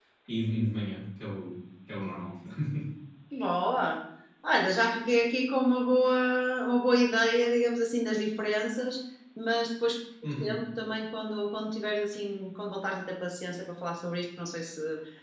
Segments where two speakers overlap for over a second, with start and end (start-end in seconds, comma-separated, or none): none